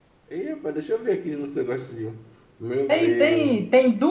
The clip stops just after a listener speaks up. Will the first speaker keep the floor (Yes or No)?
No